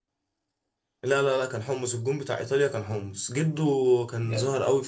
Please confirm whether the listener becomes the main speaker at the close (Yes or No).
No